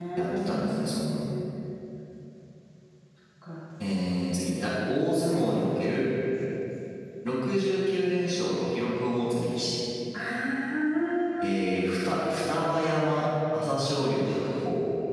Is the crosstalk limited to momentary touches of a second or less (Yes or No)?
Yes